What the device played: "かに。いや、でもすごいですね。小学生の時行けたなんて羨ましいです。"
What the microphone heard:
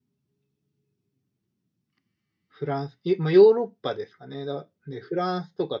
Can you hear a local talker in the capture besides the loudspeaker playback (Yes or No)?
Yes